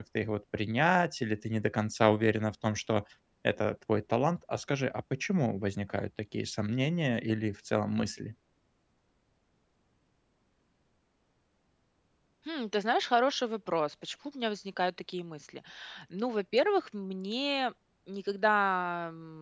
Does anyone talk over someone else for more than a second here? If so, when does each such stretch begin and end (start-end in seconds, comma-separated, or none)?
none